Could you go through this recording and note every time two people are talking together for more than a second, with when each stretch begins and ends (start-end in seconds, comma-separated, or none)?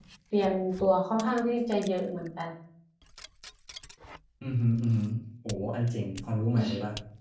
none